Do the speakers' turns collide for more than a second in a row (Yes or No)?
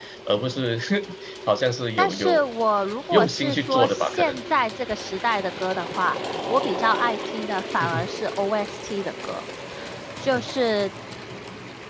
Yes